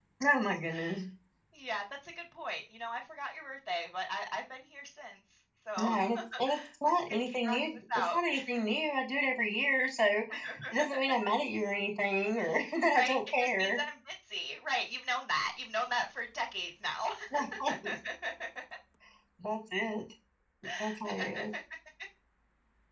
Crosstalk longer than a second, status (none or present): present